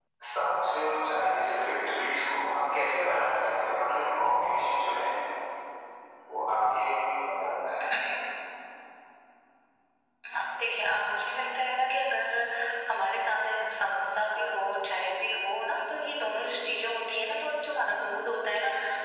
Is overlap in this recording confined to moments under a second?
Yes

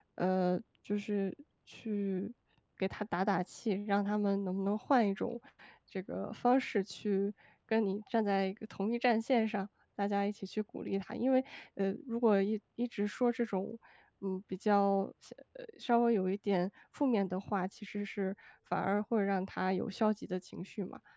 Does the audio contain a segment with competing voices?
No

